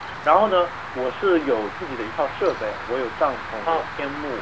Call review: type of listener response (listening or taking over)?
listening